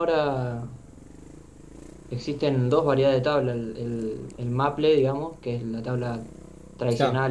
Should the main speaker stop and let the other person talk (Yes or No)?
No